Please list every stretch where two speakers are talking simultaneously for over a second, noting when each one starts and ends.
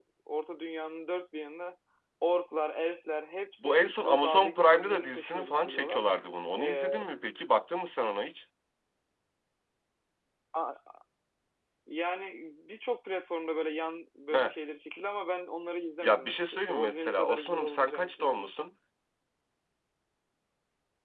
3.6-6.0, 16.0-18.6

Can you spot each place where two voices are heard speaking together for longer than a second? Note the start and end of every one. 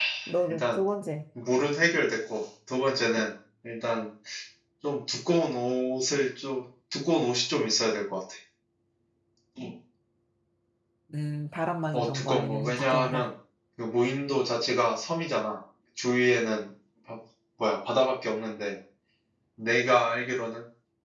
11.9-13.2

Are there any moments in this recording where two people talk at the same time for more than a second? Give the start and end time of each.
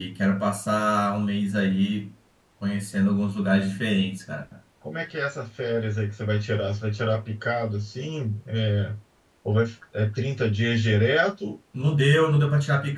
none

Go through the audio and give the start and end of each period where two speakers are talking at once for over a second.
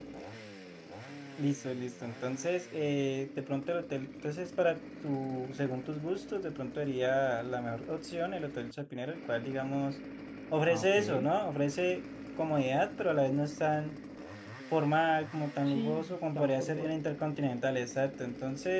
15.6-16.9

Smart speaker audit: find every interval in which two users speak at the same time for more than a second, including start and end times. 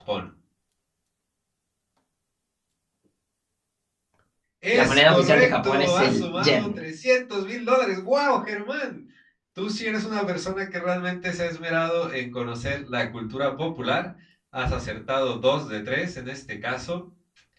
4.7-6.8

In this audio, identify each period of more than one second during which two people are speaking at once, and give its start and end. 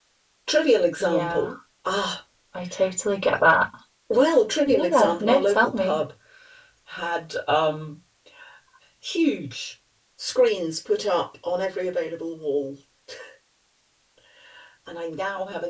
4.7-6.0

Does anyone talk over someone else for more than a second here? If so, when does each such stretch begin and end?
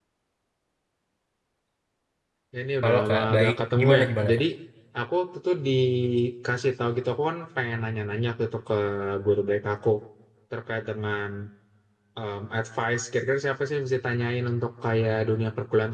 2.8-4.4

